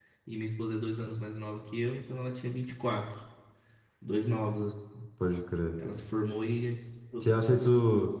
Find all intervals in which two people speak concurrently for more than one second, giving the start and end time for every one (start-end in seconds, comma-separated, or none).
none